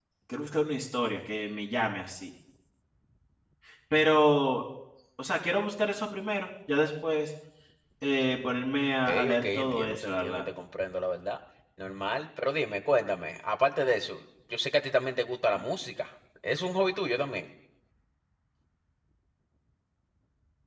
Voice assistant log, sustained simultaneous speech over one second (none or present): present